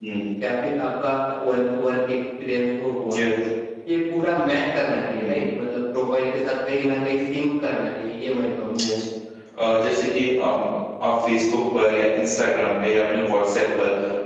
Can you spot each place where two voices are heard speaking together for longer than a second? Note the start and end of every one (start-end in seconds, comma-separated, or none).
none